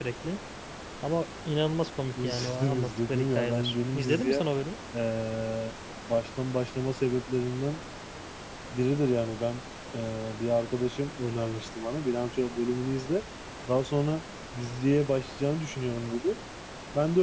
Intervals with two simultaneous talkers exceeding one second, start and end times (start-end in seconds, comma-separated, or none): 2.2-4.4